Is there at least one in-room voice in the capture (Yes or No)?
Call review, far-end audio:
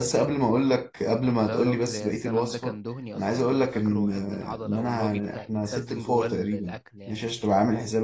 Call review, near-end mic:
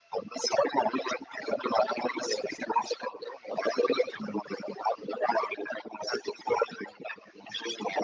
No